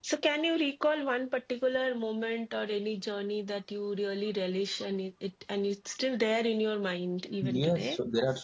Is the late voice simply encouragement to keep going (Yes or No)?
No